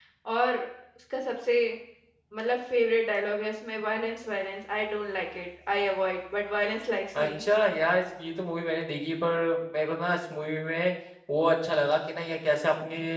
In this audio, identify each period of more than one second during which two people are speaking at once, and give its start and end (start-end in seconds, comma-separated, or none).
none